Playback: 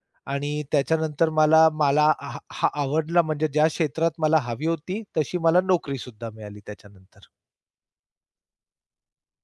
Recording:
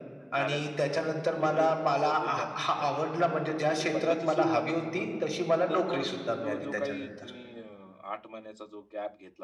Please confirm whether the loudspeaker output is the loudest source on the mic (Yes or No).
Yes